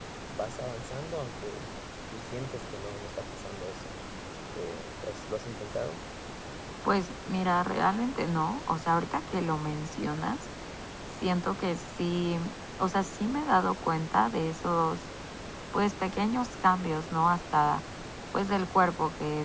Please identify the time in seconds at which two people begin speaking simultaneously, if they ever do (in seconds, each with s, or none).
none